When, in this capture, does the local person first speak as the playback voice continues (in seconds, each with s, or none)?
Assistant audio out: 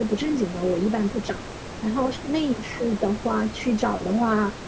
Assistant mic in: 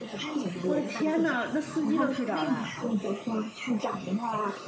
0.6 s